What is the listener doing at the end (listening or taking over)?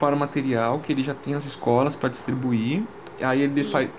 listening